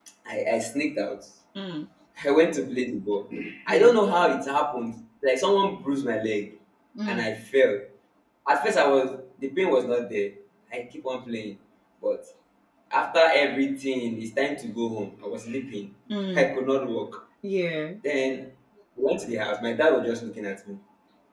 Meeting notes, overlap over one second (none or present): none